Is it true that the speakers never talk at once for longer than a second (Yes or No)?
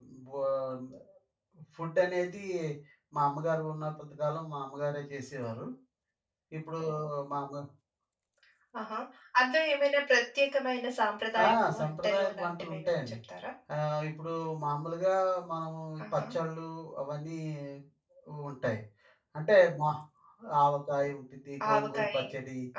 No